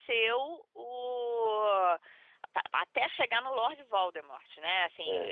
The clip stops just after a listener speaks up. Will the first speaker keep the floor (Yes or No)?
Yes